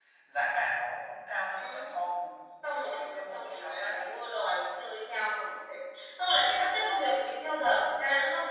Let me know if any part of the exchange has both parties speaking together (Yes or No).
Yes